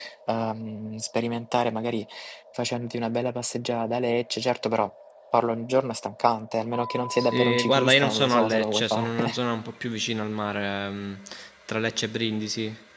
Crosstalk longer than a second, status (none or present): present